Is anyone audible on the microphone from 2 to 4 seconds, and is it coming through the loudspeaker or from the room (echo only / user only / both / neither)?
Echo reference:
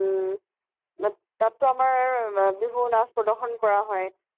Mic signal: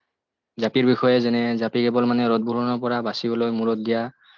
user only